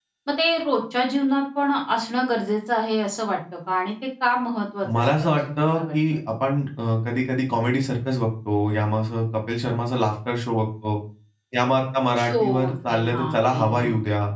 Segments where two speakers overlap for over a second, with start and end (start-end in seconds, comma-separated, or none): 5.0-6.2, 12.2-13.9